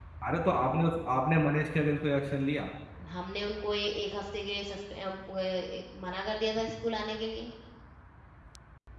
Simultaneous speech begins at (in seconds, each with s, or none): none